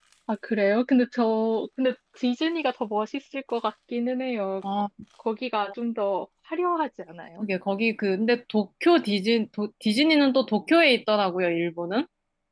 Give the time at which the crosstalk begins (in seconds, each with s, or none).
none